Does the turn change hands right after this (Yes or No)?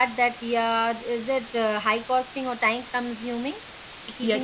Yes